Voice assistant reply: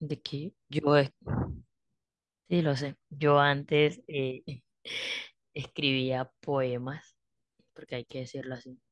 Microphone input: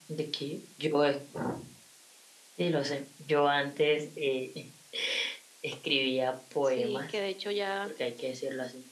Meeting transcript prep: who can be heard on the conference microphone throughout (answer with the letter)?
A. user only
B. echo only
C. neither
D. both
D